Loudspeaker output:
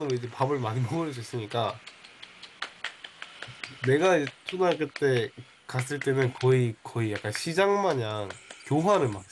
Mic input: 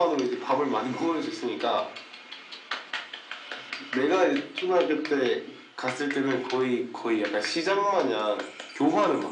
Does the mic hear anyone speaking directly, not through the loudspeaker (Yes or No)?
No